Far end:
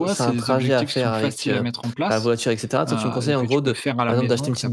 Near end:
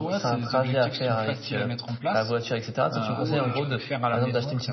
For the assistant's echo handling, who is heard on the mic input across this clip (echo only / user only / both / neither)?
both